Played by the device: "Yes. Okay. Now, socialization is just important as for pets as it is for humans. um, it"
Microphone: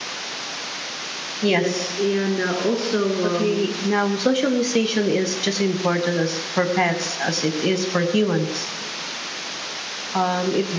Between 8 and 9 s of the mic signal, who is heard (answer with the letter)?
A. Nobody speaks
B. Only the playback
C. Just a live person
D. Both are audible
B